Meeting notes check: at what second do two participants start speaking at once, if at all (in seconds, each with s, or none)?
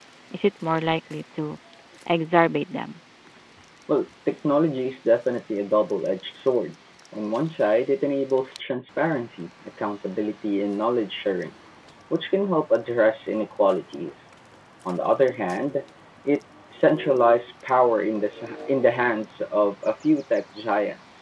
none